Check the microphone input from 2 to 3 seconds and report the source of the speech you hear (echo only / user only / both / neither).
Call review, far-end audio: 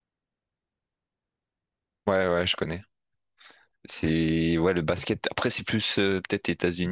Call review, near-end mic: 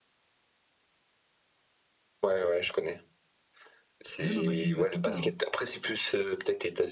echo only